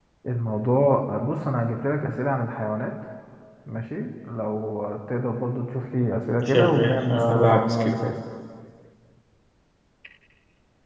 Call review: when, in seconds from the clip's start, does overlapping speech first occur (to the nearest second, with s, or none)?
6 s